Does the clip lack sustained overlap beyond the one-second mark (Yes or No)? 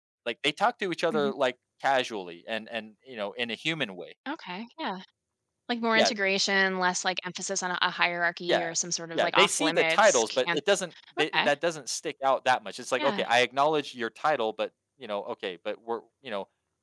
No